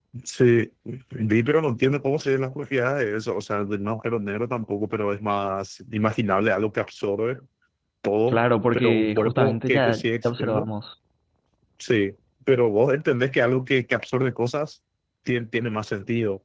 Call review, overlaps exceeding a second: present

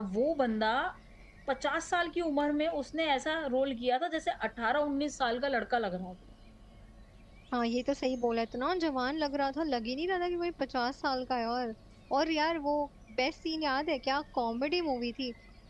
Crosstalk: none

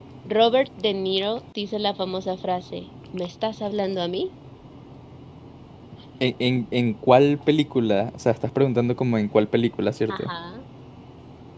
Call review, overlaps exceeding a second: none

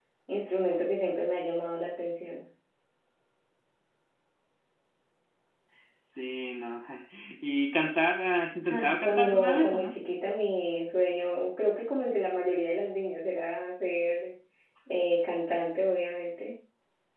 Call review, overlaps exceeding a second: present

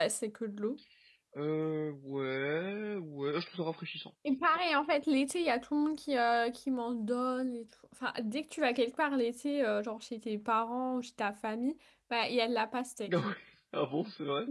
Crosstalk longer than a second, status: none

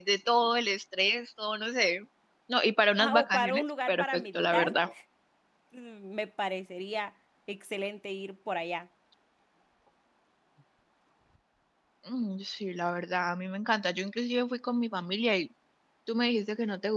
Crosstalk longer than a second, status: present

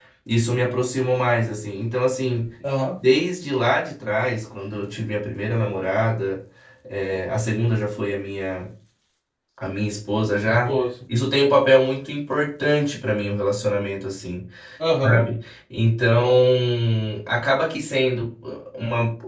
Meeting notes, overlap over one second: none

